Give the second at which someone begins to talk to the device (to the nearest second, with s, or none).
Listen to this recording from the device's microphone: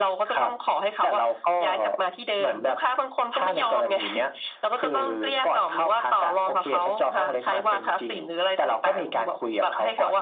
none